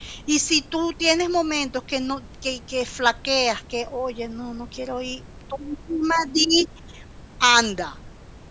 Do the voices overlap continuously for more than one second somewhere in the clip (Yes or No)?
No